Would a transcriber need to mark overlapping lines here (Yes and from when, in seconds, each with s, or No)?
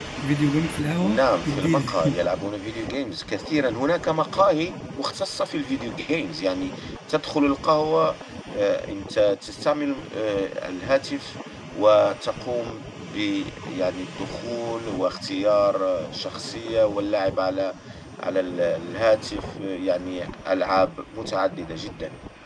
Yes, from 1.0 s